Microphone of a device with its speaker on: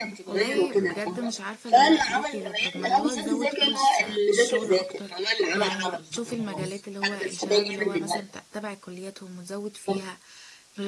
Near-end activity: present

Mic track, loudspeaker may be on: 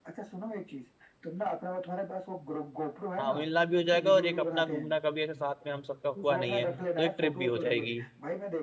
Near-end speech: present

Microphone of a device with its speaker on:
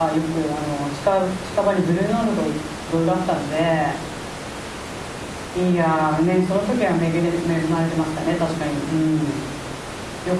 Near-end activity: present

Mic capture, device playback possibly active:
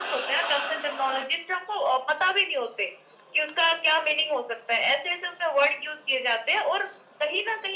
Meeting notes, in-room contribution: none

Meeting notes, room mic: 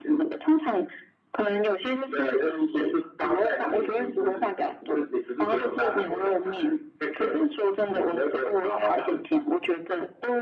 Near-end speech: none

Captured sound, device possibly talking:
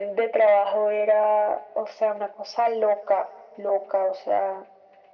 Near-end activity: none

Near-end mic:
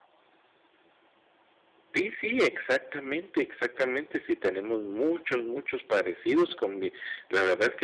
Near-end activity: present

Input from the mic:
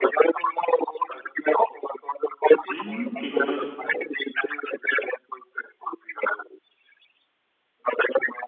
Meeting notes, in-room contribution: present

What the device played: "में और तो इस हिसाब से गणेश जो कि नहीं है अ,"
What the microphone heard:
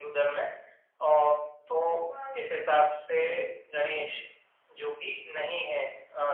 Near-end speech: present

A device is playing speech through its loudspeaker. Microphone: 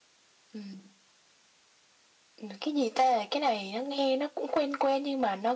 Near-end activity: none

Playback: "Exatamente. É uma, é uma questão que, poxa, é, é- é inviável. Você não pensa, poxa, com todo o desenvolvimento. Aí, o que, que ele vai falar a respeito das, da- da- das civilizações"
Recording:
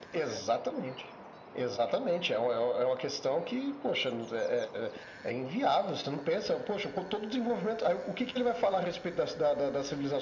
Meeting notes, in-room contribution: none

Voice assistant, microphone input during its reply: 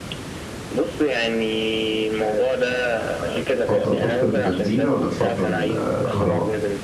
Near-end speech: present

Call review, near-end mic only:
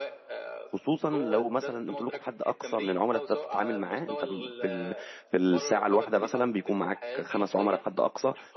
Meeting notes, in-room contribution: present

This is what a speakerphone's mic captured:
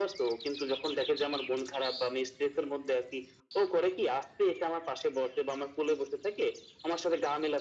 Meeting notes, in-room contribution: none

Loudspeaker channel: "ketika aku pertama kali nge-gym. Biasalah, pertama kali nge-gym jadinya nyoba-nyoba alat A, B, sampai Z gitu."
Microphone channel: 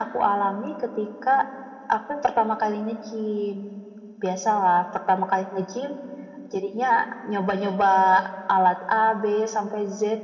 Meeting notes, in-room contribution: none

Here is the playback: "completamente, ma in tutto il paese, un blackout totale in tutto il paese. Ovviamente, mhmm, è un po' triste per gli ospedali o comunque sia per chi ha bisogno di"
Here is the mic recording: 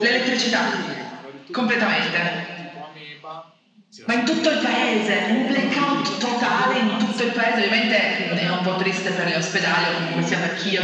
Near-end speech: present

